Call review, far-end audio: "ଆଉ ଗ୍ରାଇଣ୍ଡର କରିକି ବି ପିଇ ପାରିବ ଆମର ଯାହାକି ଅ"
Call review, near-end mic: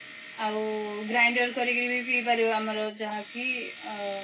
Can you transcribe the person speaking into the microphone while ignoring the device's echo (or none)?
none